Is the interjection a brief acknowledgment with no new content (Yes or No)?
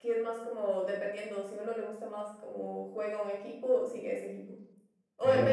Yes